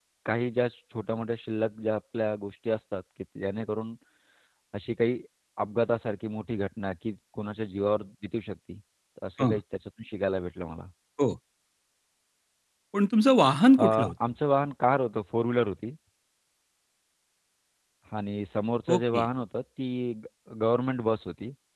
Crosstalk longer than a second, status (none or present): none